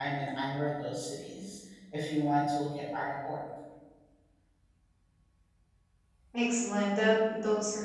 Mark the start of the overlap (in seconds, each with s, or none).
none